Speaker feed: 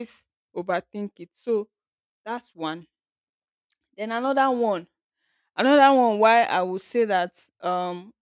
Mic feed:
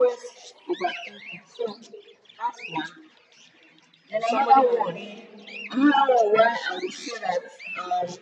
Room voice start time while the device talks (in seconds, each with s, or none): 4.2 s